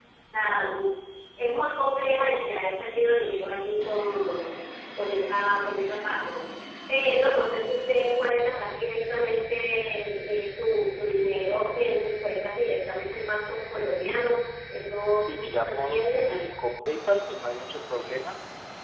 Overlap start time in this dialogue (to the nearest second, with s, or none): 15 s